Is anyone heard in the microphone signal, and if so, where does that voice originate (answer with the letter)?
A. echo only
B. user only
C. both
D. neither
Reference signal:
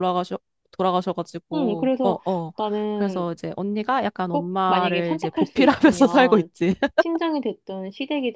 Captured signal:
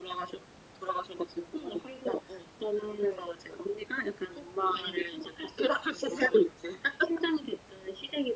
A